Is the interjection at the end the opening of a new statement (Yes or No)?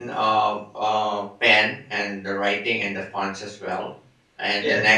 No